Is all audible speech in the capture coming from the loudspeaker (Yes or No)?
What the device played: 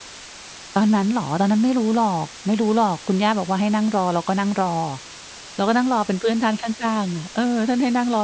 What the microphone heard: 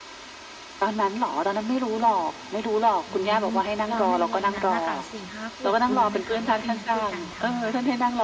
No